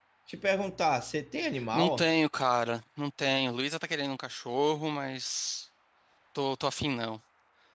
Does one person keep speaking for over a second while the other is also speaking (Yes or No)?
No